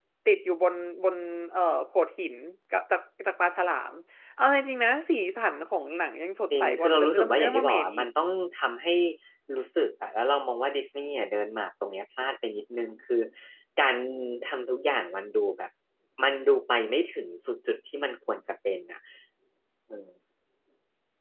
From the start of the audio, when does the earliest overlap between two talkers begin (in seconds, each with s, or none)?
6.5 s